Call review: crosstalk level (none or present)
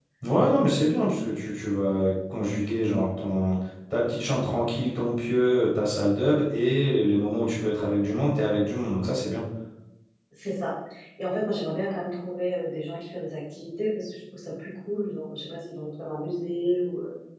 none